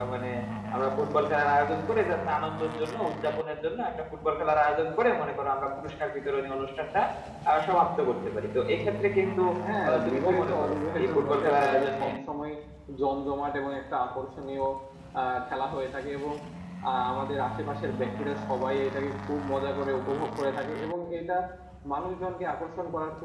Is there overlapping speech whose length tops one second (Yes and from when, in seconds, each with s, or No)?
Yes, from 9.9 s